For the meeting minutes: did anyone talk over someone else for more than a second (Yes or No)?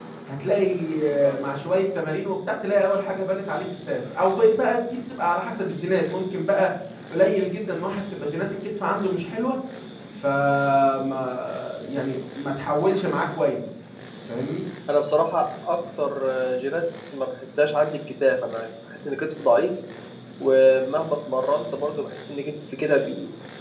No